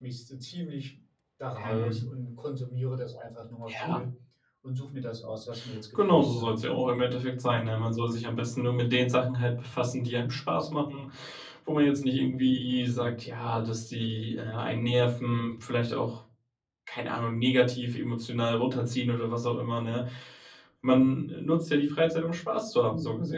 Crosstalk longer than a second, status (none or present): none